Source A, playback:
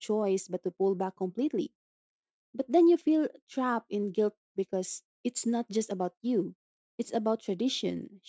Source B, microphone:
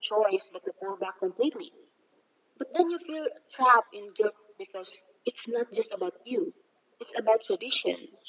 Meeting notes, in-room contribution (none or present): none